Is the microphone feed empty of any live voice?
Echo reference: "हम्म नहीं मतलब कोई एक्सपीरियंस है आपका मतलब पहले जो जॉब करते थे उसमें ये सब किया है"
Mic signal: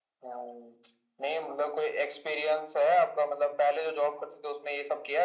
Yes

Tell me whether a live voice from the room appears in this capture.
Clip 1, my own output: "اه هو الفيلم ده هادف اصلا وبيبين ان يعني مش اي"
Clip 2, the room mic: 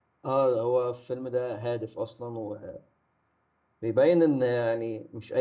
No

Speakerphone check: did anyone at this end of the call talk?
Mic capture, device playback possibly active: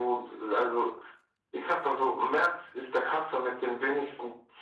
No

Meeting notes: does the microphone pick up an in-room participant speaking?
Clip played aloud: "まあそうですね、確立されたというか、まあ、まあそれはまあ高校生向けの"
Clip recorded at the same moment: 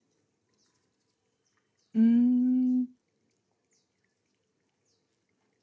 Yes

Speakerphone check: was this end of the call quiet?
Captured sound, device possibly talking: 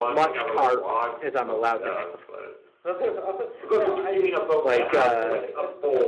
No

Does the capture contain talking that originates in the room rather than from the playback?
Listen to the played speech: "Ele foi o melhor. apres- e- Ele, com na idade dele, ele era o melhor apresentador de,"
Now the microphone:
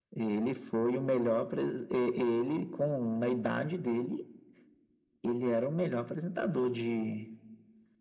No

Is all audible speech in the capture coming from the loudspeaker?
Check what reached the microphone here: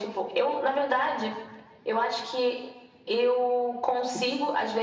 Yes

